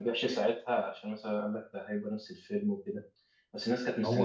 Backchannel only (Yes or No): Yes